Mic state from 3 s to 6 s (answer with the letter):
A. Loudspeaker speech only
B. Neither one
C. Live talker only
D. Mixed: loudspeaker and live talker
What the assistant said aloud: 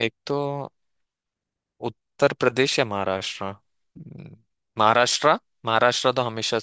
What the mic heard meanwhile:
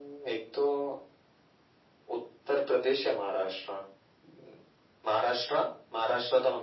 A